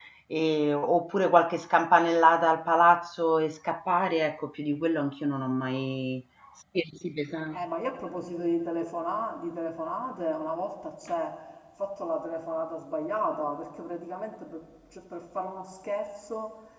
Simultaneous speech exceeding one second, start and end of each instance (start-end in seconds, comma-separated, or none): none